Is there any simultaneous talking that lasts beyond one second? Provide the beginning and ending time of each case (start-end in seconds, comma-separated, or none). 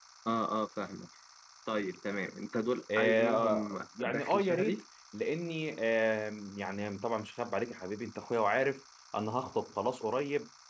3.0-4.8